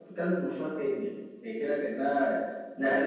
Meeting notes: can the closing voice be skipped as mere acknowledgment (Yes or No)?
Yes